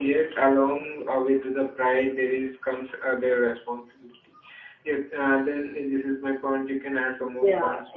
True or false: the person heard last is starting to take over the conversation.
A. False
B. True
B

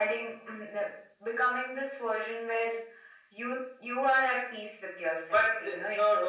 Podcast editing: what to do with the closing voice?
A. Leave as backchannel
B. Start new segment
B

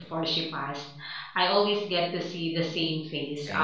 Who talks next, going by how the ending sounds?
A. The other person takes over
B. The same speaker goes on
B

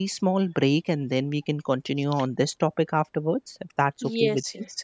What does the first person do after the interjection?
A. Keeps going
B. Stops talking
B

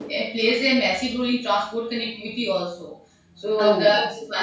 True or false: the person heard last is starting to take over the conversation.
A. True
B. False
B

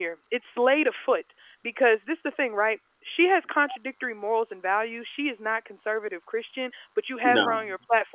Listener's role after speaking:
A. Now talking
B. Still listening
B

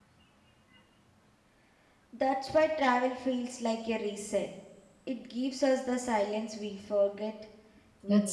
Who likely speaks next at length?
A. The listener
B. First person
A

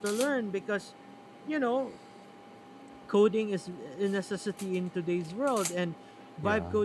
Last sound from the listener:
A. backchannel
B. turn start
A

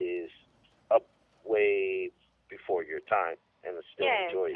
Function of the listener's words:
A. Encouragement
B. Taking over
B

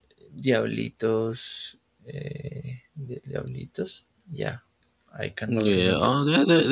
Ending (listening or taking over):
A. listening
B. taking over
B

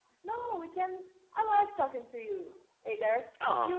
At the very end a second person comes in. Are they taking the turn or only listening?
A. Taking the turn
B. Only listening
A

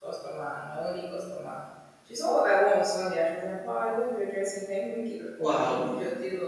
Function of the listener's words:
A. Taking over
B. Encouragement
B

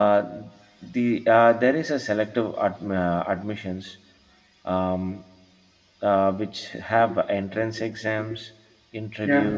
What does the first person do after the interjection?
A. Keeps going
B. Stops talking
A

